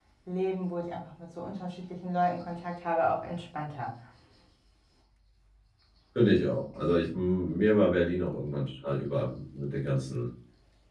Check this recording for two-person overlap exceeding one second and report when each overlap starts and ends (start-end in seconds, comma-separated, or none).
none